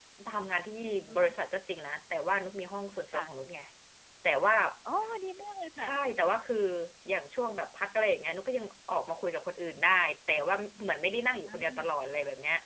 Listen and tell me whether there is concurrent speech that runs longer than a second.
No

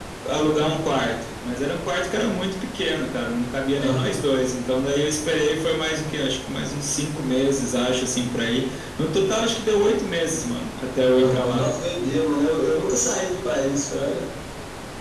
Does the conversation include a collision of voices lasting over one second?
No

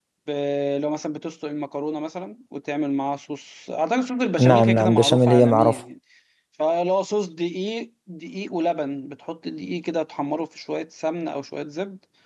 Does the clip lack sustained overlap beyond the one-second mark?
No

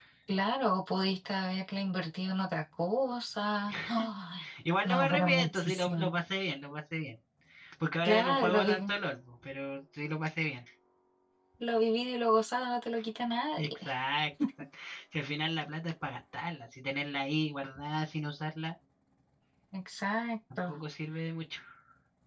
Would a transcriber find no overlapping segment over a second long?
No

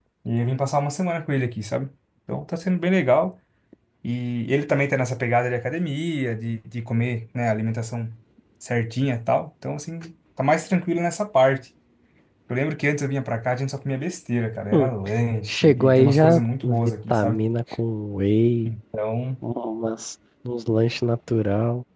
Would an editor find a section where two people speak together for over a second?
Yes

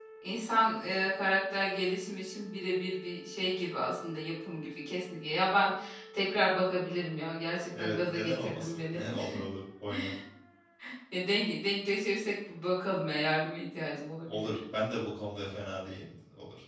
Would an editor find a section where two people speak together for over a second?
Yes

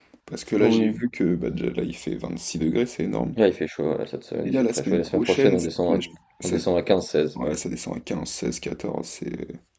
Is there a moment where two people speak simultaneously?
Yes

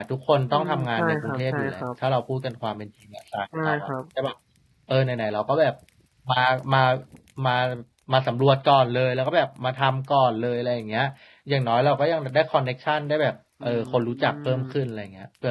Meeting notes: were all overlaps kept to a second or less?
No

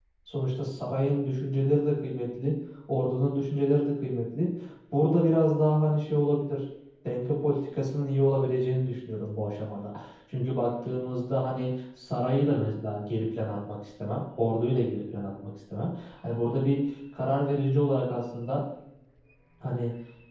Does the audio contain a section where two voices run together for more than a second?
No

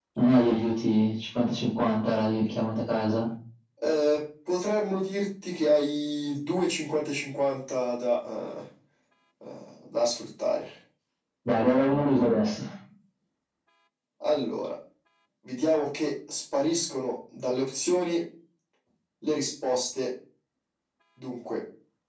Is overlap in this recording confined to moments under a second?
Yes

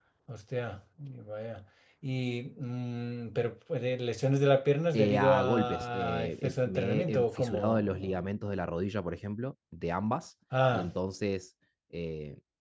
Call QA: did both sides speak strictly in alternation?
No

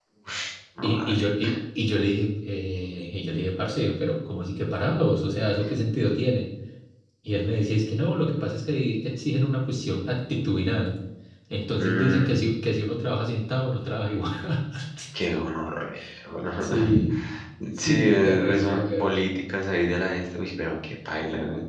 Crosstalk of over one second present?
Yes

